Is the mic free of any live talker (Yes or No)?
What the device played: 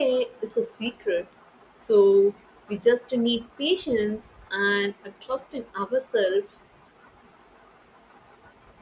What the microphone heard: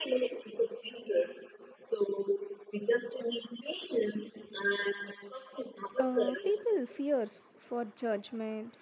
No